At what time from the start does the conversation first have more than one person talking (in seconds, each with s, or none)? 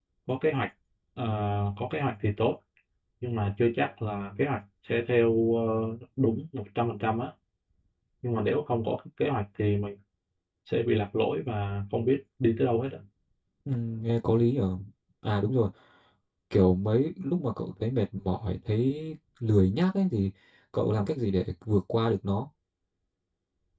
none